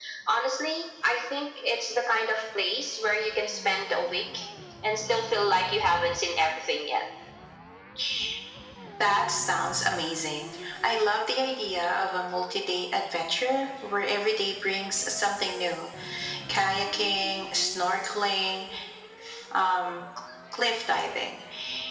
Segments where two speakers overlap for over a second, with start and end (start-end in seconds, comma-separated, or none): none